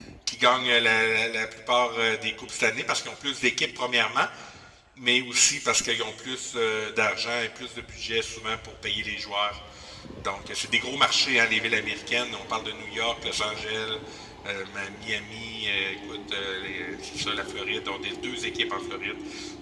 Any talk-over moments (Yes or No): No